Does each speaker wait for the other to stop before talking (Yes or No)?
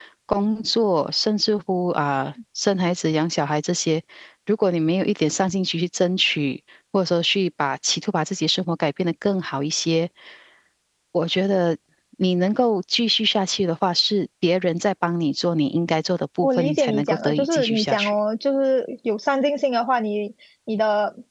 No